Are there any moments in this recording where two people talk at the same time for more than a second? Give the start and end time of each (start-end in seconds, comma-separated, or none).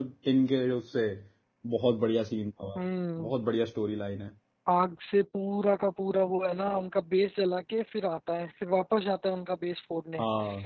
none